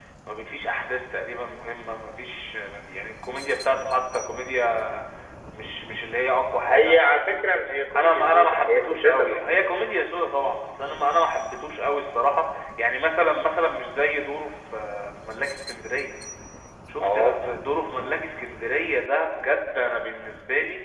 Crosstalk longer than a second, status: present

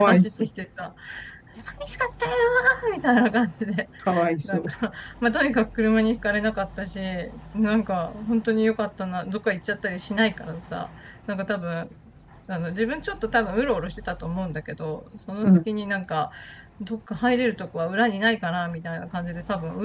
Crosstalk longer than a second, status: none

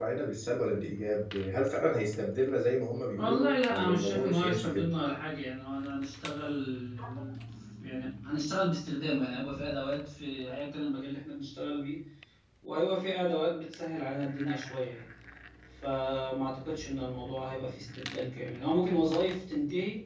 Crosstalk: present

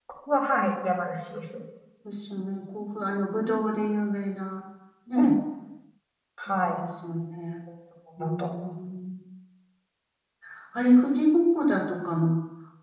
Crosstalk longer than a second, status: none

